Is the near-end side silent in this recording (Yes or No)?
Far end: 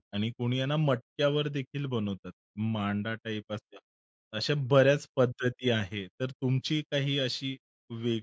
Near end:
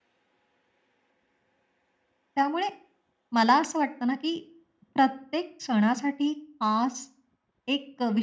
No